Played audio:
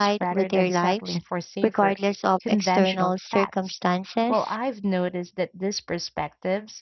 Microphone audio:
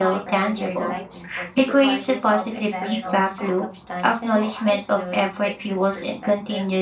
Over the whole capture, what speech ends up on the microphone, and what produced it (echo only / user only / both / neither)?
both